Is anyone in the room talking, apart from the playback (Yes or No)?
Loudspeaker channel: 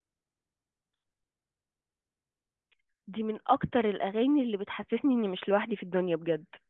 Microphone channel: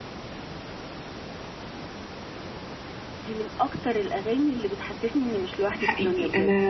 Yes